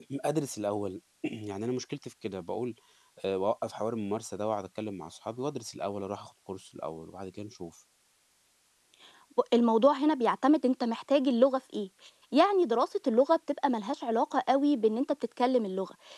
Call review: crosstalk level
none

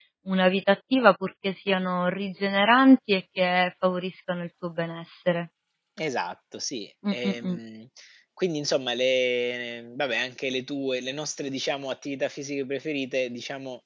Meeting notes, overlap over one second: none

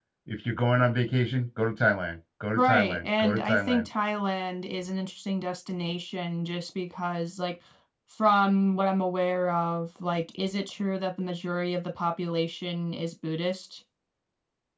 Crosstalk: present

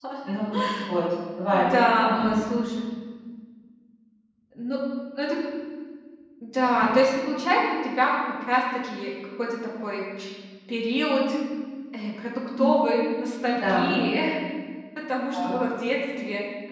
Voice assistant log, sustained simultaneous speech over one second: none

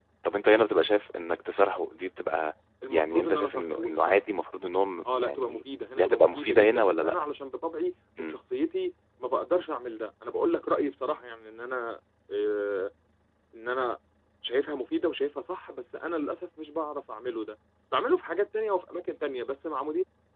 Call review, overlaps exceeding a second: present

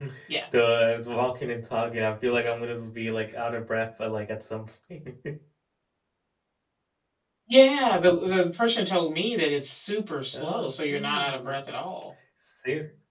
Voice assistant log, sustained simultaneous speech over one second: present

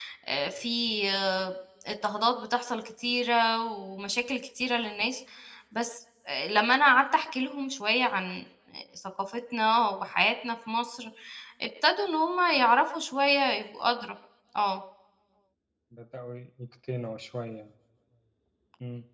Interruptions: none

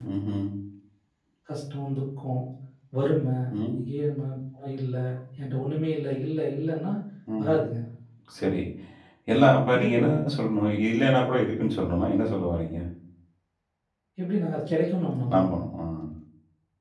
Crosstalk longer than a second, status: none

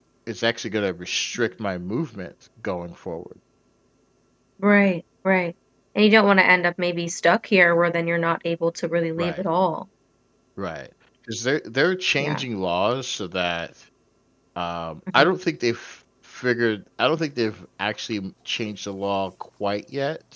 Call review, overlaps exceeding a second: none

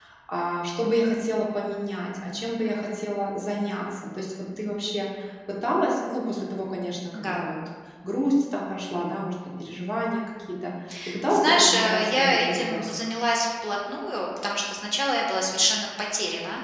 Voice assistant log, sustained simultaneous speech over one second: present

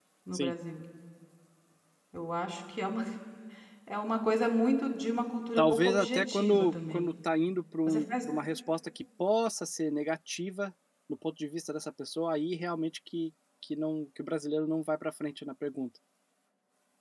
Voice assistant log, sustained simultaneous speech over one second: present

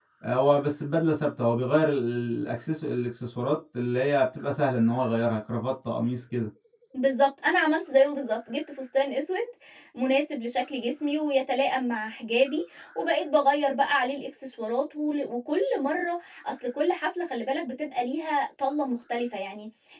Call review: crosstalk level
none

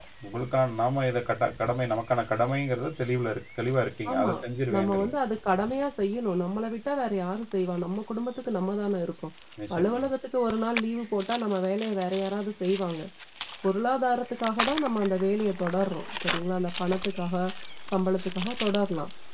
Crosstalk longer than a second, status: none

